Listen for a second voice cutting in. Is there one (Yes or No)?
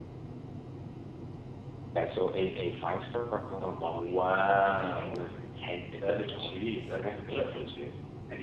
Yes